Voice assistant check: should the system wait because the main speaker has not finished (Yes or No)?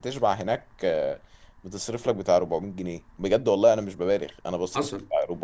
No